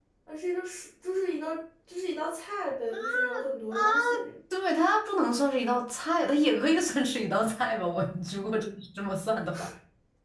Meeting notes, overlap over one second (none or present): none